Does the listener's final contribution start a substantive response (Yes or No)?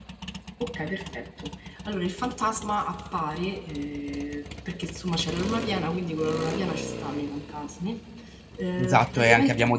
Yes